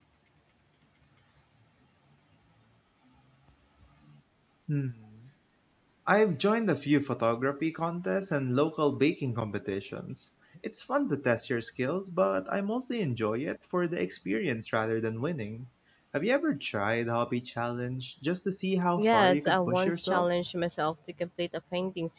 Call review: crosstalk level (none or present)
present